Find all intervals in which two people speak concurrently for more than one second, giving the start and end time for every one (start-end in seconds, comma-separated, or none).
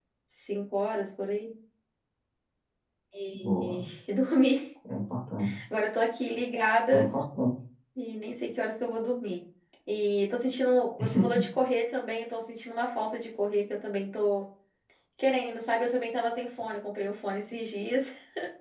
none